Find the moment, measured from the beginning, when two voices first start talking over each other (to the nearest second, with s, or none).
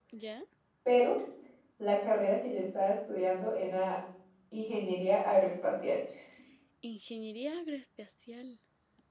none